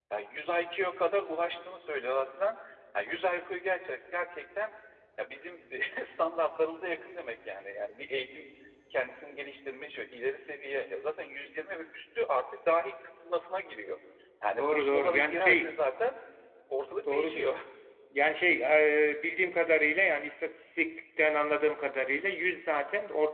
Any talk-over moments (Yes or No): Yes